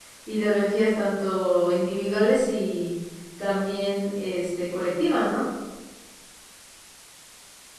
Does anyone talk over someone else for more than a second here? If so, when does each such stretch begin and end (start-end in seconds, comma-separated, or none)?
none